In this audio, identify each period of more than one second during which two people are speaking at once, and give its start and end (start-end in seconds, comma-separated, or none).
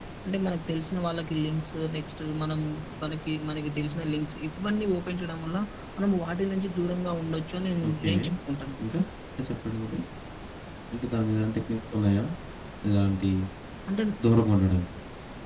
none